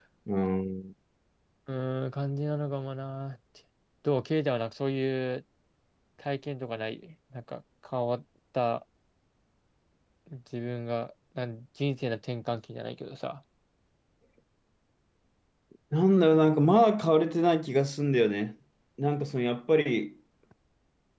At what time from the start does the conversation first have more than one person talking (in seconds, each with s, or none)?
none